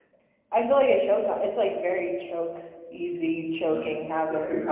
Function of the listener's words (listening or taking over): taking over